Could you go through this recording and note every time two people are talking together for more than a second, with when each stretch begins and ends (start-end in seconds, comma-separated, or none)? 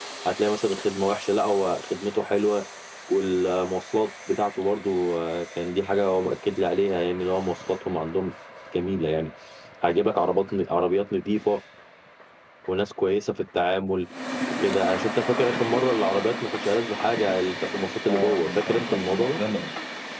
18.1-19.4